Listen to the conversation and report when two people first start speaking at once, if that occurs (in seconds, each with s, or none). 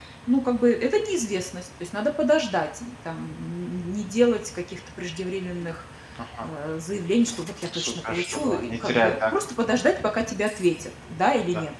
7.6 s